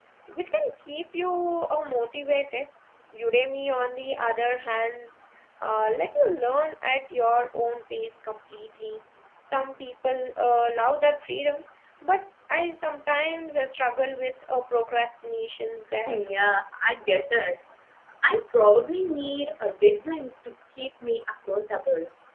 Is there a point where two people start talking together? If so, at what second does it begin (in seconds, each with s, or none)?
none